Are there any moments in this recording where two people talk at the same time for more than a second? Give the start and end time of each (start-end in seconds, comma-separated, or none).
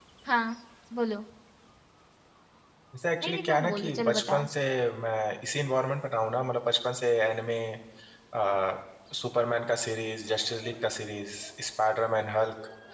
3.2-4.5